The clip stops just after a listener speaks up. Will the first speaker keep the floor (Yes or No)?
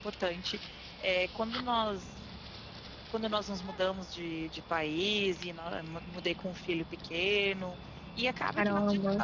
Yes